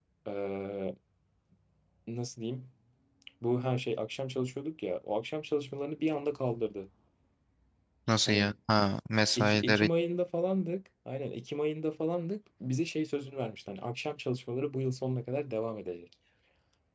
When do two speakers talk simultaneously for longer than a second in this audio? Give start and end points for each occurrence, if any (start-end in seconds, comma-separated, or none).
none